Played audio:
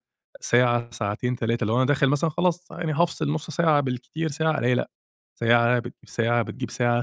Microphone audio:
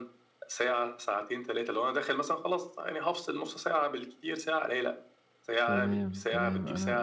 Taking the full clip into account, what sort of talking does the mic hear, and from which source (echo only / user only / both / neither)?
both